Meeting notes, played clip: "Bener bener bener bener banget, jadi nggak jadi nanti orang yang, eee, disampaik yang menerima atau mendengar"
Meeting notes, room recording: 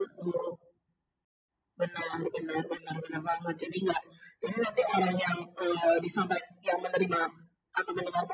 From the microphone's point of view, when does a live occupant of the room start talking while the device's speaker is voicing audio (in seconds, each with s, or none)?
none